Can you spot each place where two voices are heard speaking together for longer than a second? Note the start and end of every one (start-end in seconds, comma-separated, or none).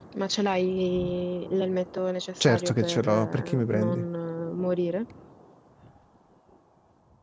2.4-4.0